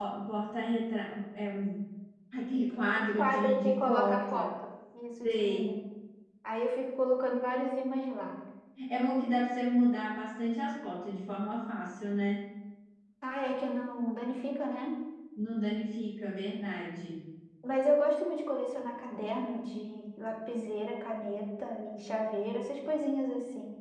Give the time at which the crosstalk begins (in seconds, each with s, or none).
3.0 s